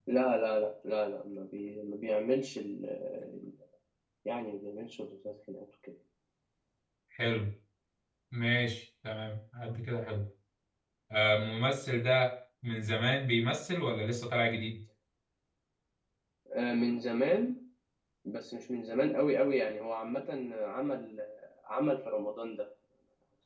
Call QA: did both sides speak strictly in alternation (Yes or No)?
Yes